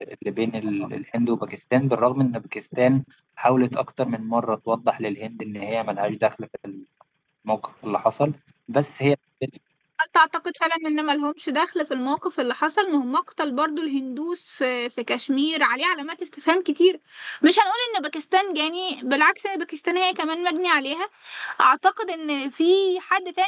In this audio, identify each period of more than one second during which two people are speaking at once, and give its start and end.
none

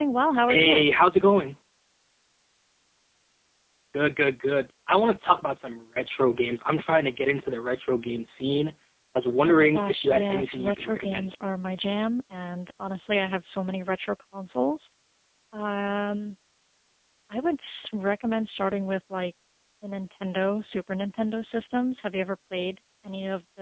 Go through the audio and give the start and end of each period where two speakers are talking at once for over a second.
9.4-11.3

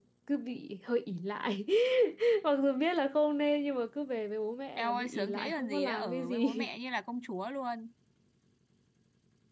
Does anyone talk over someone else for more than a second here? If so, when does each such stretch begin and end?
4.8-6.7

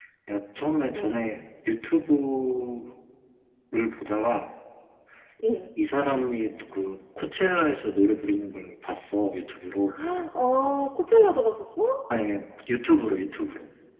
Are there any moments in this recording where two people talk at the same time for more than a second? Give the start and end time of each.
none

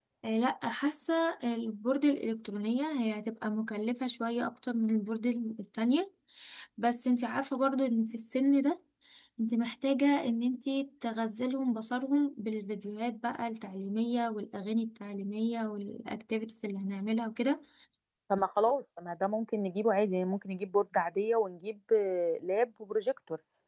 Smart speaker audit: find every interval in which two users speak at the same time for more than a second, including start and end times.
none

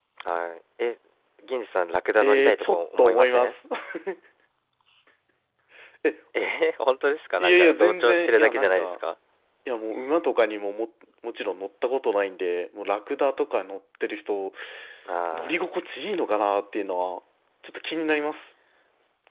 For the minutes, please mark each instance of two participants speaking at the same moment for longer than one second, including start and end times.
2.2-3.6, 7.4-9.0

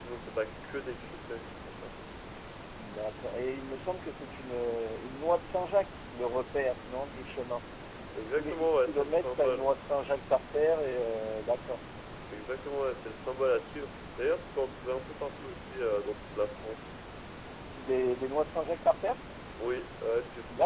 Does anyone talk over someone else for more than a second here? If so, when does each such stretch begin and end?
8.4-9.7

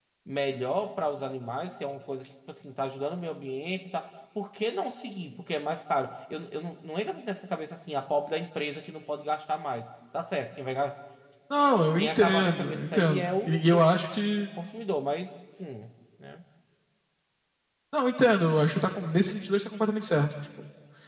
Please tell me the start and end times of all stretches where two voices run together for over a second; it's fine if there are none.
12.0-13.8

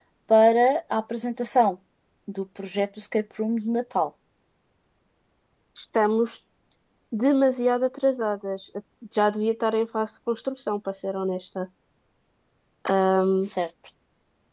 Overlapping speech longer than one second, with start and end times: none

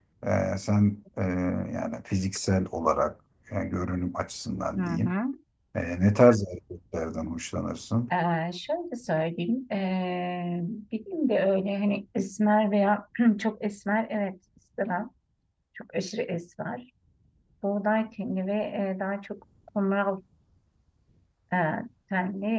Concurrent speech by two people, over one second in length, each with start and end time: none

